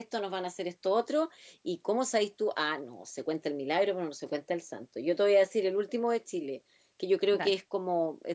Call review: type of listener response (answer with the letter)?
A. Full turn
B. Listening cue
B